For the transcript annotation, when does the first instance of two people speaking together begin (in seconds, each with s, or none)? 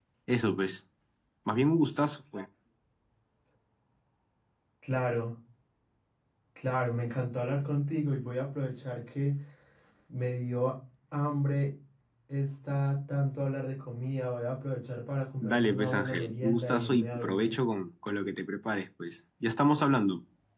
15.4 s